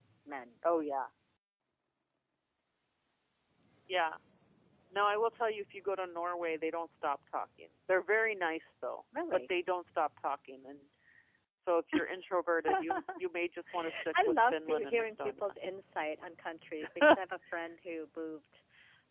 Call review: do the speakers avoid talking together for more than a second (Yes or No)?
No